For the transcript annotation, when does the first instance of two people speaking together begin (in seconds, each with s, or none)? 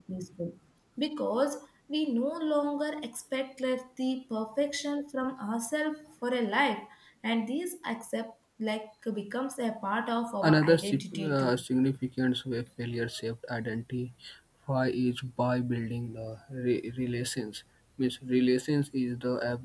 10.4 s